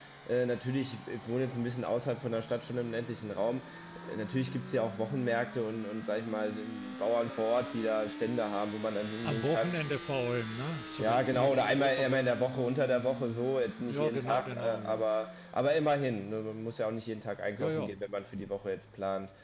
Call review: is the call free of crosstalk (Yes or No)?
No